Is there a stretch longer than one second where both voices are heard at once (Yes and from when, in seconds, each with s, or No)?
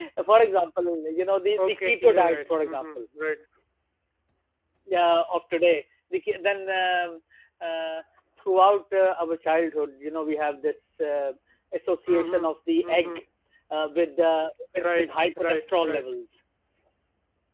Yes, from 1.6 s